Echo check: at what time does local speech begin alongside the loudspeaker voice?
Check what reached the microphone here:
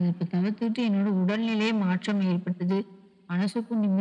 none

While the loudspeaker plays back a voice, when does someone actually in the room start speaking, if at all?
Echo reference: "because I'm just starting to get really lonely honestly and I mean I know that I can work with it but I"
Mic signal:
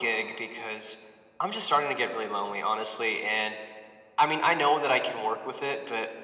none

